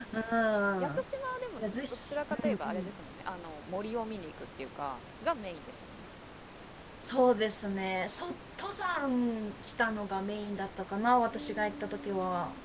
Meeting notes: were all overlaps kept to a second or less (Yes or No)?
No